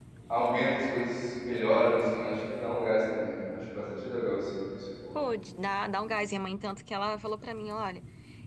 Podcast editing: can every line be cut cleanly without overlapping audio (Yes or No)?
Yes